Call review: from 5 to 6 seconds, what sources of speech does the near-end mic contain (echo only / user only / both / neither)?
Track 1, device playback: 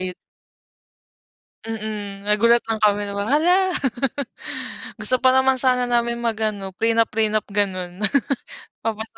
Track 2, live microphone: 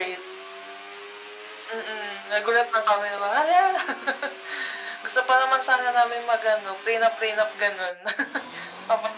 echo only